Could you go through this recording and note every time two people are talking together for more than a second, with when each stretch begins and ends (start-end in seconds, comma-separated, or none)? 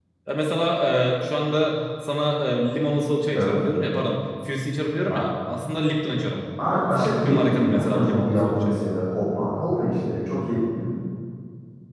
6.9-8.8